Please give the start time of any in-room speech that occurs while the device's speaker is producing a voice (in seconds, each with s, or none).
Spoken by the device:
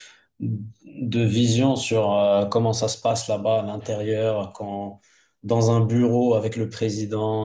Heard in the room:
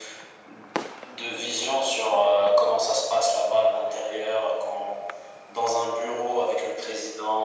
none